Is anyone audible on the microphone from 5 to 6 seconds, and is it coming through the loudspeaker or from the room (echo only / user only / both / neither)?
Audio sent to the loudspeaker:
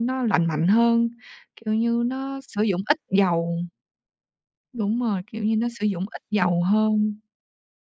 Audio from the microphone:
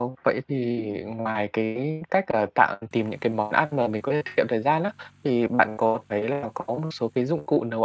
user only